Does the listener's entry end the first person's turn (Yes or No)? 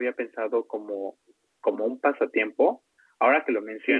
Yes